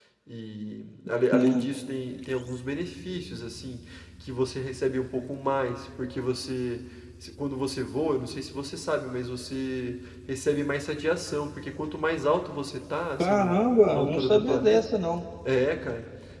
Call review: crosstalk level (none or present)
present